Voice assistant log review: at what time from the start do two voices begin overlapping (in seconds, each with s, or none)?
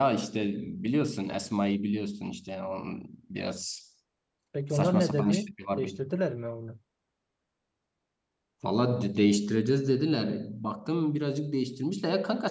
4.7 s